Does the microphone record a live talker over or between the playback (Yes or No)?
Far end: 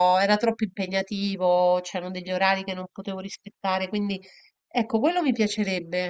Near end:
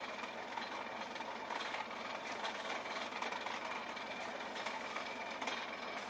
No